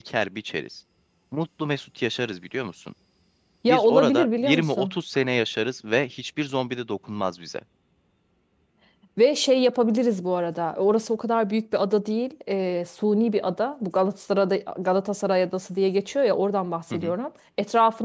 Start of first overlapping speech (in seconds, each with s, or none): 3.7 s